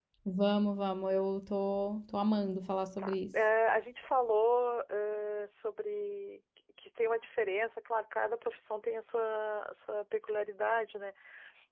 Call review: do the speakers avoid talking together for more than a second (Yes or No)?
Yes